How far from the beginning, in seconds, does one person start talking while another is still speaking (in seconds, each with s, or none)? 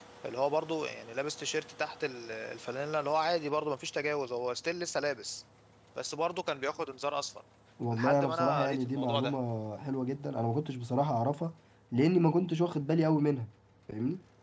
7.9 s